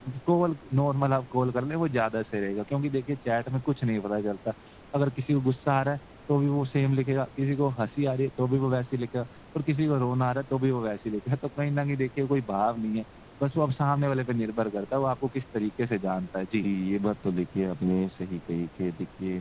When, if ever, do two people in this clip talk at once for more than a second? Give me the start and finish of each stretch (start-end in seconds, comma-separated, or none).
none